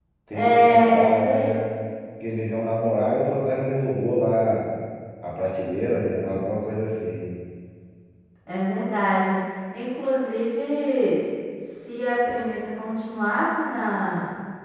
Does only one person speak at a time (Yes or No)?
No